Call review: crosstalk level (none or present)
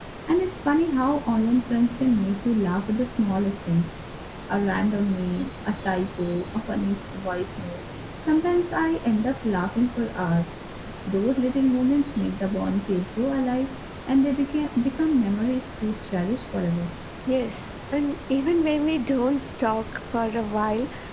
none